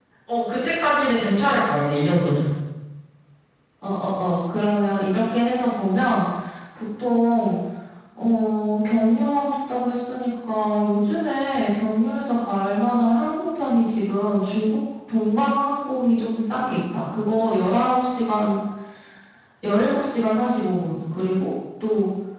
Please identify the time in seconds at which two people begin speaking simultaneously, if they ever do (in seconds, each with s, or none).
none